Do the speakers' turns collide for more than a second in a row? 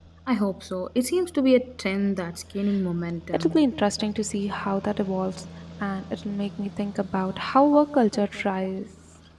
No

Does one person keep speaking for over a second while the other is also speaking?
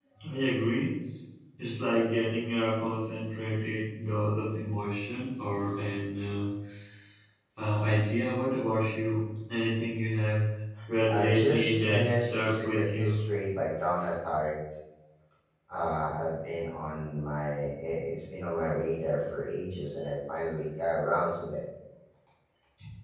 Yes, from 11.1 s

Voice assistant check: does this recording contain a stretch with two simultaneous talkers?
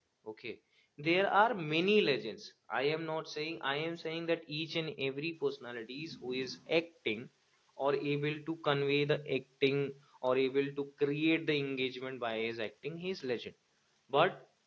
No

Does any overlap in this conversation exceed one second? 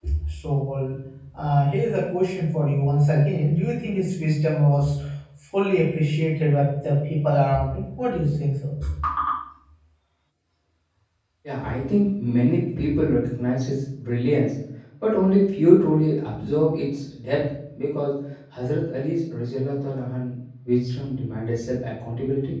No

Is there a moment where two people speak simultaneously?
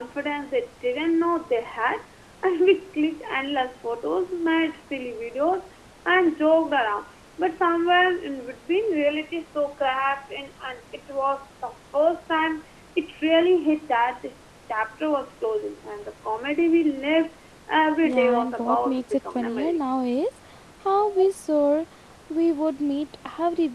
Yes, from 18.0 s

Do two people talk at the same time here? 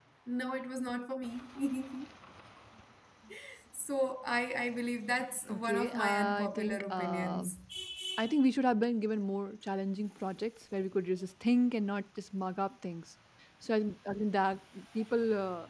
Yes, from 5.5 s

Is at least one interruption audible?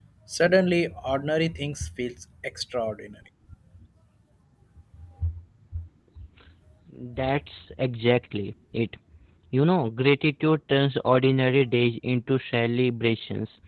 No

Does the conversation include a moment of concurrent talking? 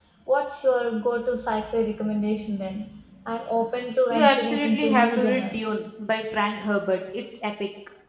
Yes, from 4.1 s

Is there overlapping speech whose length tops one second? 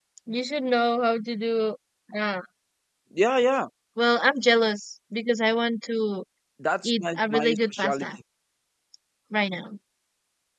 Yes, from 6.8 s

